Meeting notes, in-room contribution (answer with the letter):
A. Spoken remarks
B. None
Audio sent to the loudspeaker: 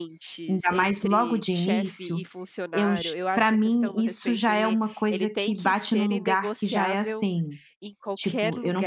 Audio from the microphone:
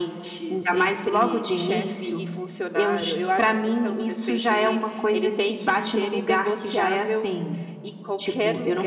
B